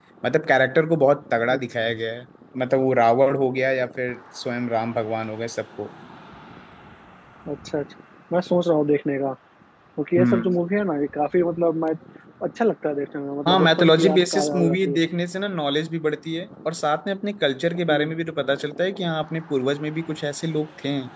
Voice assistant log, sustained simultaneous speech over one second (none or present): present